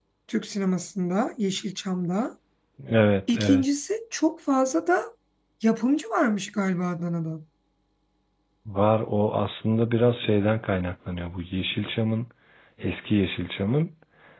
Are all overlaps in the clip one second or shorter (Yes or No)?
Yes